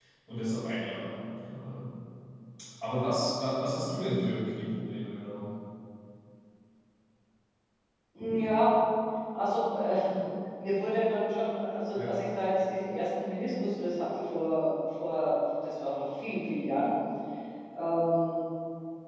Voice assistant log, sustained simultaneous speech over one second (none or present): none